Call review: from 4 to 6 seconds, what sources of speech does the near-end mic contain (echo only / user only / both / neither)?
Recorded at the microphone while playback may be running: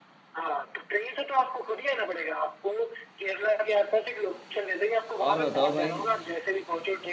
both